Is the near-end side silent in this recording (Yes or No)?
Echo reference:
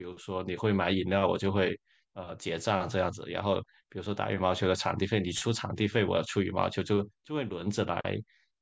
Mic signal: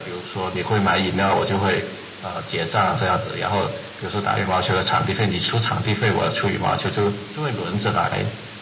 Yes